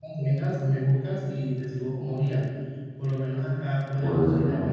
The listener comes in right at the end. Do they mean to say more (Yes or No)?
No